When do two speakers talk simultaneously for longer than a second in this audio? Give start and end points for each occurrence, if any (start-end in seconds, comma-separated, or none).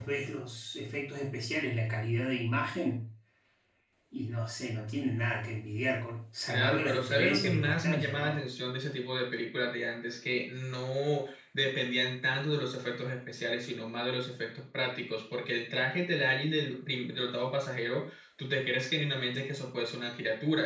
6.5-8.4